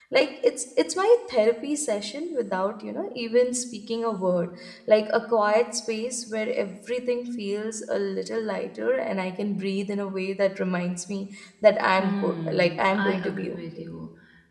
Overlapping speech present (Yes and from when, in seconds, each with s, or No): Yes, from 12.0 s